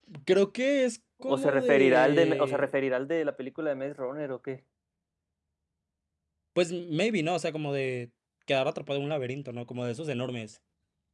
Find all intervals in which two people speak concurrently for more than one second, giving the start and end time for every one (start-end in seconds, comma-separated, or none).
1.2-2.7